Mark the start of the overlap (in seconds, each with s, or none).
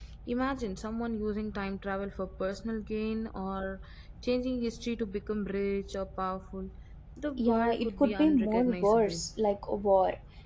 7.4 s